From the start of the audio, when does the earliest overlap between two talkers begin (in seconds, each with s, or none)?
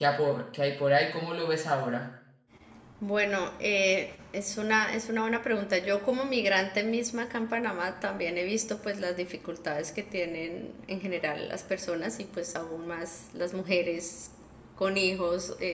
none